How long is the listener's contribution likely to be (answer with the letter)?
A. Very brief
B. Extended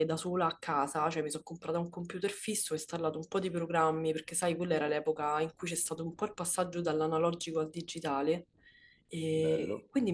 A